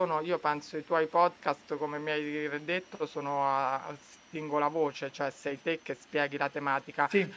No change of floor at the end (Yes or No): Yes